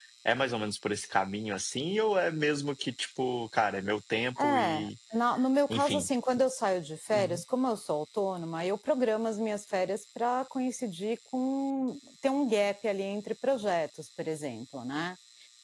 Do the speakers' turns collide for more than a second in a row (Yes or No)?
No